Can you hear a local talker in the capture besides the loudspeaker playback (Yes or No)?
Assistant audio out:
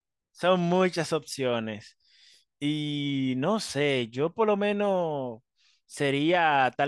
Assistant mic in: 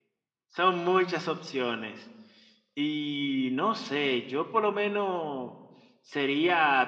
No